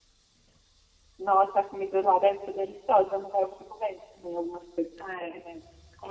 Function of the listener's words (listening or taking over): taking over